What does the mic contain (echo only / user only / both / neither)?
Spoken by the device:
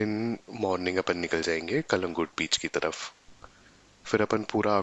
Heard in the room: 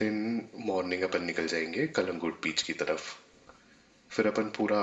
echo only